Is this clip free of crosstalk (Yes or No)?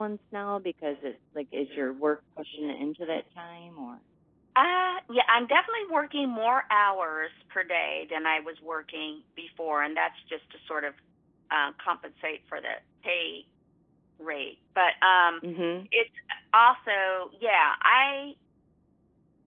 Yes